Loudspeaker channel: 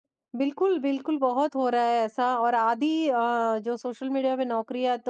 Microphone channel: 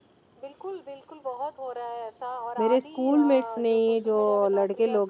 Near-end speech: present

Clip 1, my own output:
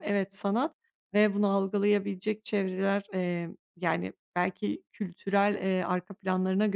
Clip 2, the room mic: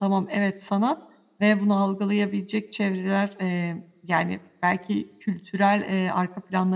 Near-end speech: none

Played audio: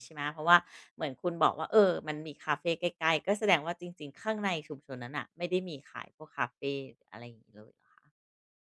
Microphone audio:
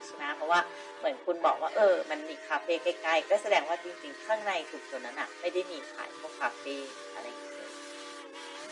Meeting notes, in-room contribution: none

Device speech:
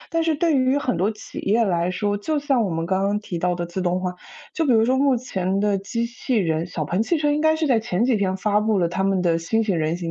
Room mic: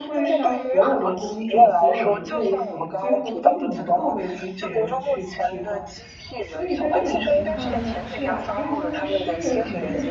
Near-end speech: present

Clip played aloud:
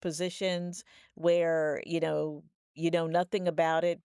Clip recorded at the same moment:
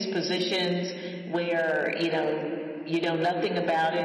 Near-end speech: none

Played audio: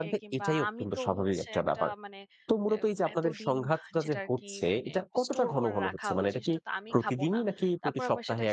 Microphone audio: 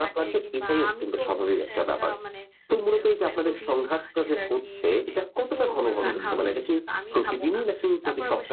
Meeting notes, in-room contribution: present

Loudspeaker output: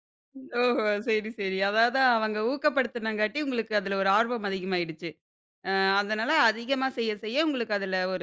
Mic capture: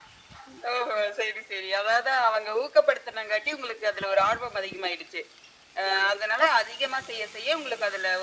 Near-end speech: none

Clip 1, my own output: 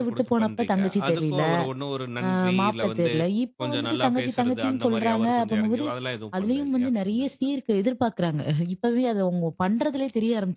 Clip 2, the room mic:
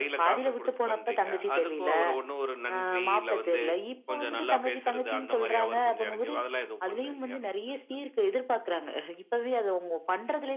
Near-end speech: none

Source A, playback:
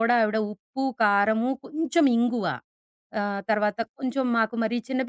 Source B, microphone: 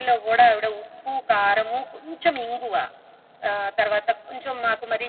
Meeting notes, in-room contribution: none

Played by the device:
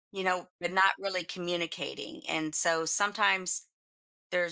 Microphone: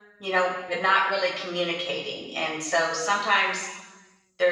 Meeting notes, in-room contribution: none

